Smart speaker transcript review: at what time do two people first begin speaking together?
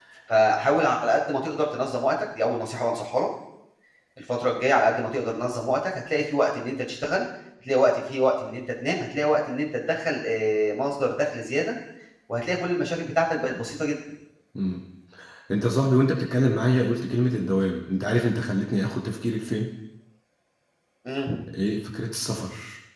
none

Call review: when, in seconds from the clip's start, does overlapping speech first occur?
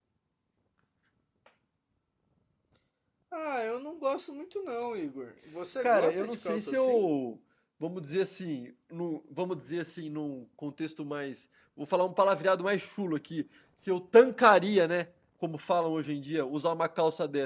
5.8 s

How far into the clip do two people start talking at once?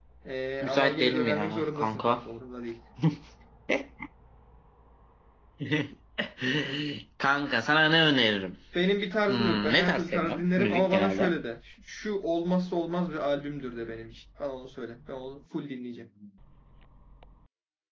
0.6 s

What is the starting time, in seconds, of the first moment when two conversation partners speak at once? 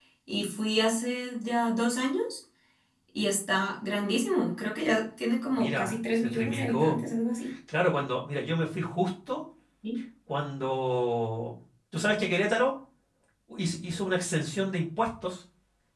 5.5 s

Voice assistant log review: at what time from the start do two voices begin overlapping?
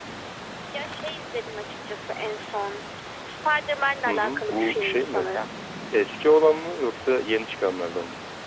4.1 s

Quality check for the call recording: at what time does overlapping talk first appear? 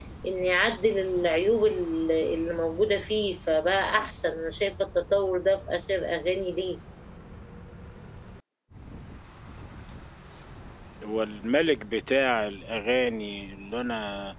none

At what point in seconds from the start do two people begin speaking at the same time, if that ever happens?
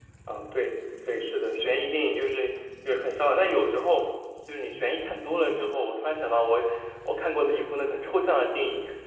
none

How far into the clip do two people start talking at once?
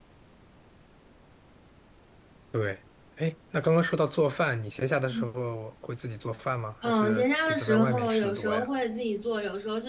6.8 s

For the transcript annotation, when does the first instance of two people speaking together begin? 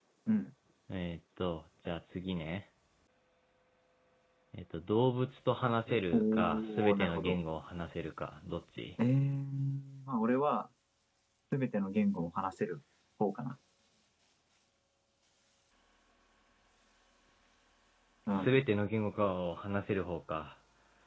6.1 s

